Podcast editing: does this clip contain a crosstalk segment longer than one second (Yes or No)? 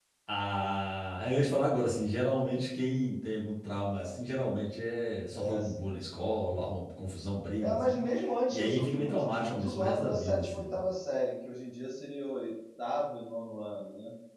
Yes